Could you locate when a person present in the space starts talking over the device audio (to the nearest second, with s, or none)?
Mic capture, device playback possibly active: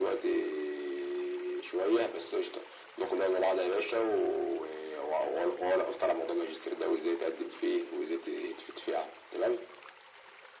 none